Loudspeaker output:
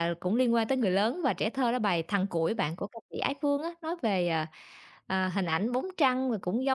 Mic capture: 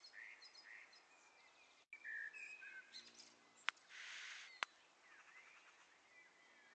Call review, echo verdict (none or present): none